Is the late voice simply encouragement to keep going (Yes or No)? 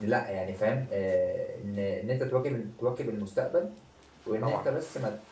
Yes